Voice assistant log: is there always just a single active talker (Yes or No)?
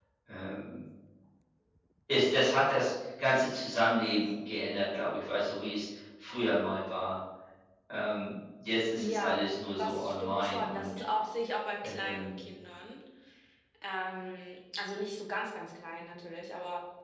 No